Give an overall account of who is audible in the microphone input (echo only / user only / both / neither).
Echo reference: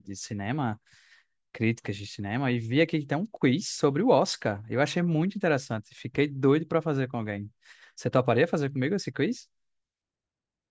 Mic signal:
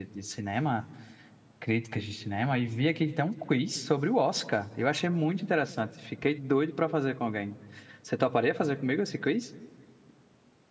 echo only